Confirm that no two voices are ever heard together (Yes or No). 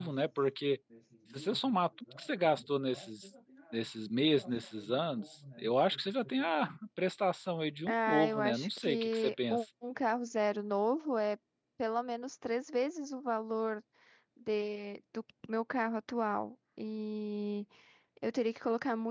No